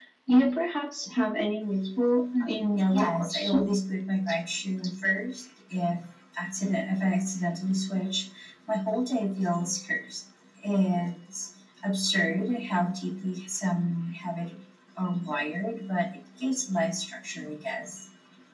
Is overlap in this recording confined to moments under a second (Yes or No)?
No